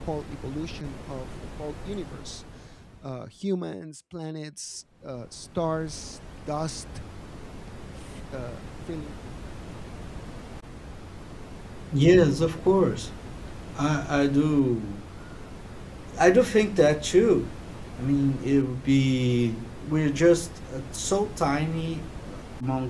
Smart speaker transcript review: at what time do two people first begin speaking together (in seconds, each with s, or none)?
none